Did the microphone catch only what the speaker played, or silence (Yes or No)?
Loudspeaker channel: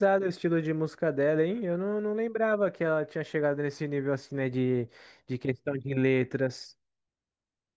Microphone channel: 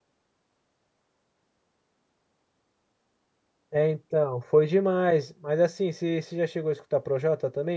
No